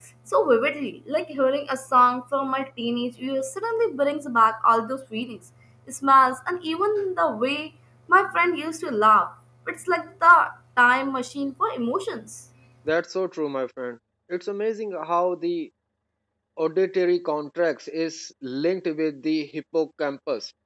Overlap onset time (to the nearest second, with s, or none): none